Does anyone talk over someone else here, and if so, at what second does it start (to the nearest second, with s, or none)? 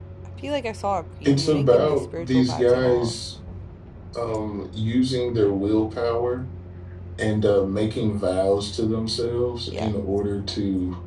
1 s